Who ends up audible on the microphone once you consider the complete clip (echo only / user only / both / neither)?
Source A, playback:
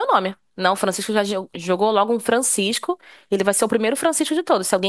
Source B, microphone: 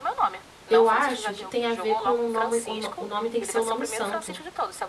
both